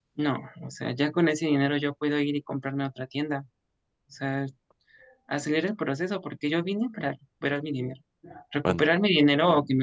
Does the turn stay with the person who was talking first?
Yes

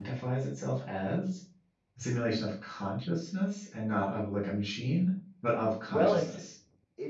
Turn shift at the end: Yes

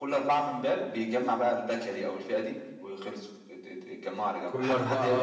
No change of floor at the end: No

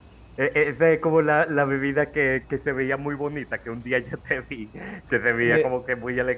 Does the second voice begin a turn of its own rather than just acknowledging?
No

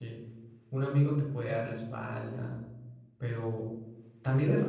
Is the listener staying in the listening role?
Yes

